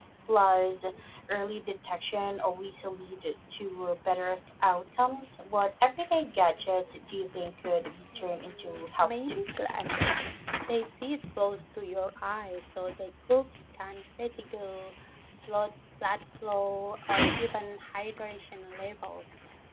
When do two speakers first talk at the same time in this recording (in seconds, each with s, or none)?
8.1 s